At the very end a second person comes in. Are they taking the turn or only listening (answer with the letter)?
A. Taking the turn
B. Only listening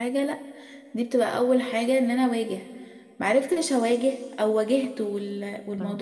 B